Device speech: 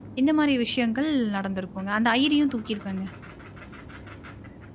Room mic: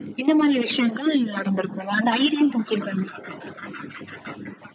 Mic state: echo only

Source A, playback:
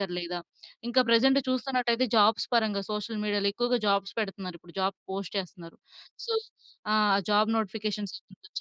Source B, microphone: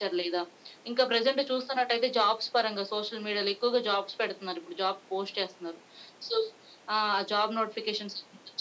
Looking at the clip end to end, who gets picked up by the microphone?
echo only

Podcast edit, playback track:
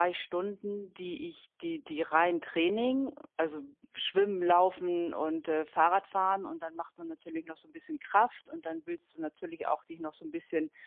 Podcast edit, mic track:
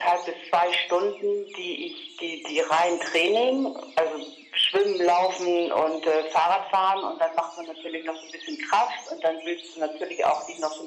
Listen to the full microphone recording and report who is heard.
echo only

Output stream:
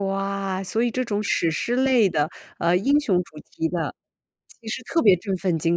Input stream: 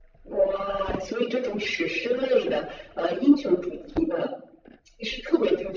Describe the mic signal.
echo only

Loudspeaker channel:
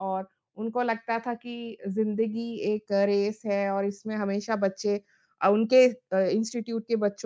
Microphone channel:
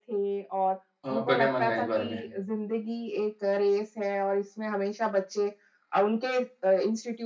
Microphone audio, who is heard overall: both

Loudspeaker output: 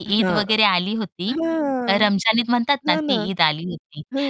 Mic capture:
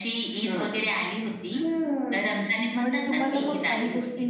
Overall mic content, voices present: both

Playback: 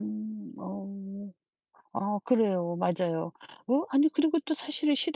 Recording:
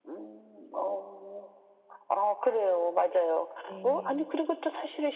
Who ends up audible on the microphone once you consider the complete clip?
both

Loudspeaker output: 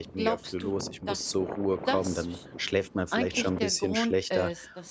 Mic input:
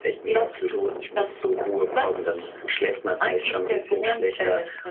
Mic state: echo only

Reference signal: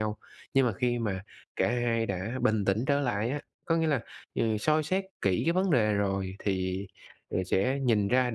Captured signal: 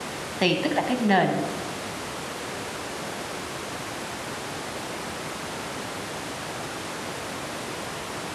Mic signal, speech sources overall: user only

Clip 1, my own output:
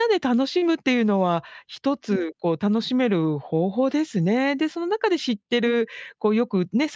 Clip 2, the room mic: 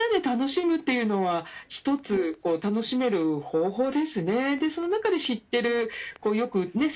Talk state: echo only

